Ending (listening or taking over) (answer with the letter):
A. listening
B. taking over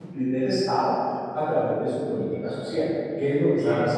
A